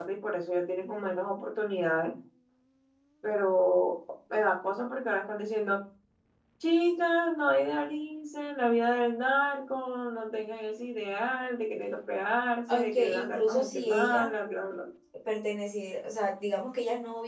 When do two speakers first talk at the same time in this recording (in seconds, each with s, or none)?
12.7 s